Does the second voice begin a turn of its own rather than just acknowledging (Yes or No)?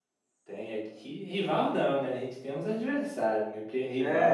Yes